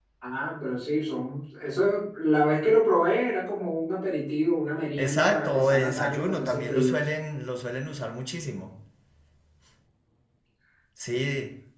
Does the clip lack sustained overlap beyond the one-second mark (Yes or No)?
No